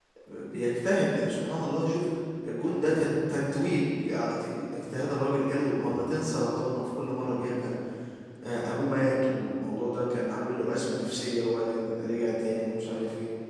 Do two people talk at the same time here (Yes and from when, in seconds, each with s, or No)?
No